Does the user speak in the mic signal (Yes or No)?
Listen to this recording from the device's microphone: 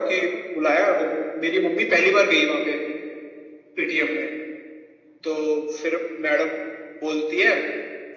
No